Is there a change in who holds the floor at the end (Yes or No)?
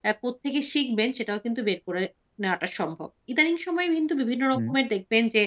No